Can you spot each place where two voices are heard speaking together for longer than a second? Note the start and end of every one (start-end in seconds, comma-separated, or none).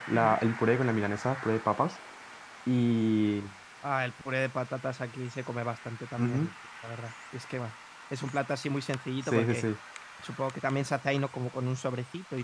none